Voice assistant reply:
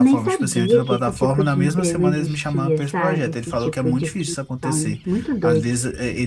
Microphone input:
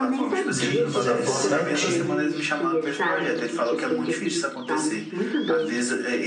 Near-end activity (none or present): present